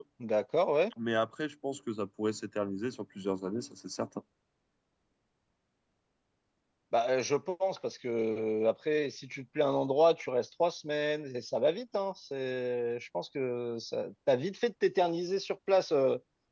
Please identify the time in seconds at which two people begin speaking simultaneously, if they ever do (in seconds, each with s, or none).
none